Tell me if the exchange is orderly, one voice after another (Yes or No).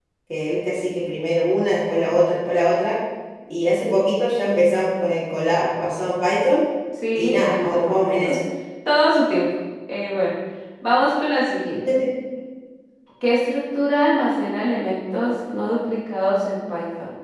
No